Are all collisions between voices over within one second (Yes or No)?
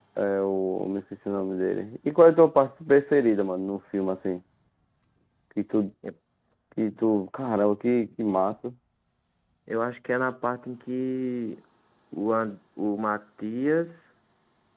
Yes